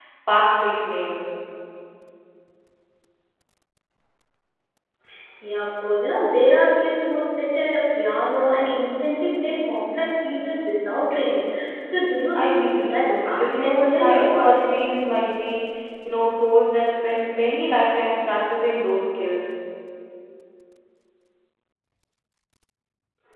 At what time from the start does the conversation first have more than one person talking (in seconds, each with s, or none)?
12.3 s